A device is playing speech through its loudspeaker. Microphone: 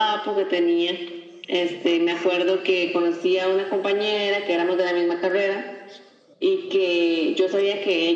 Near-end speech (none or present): none